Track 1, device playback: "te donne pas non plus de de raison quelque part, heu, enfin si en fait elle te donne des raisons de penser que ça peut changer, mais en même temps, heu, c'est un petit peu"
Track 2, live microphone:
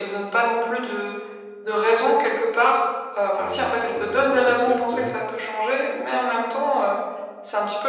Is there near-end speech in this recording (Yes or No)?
Yes